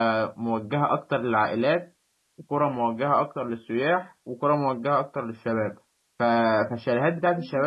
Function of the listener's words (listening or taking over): listening